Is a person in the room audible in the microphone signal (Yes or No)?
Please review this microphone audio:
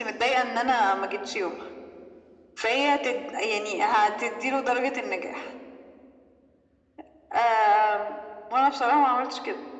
No